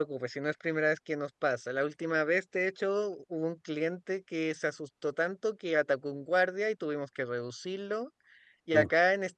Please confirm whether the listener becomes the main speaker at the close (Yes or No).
No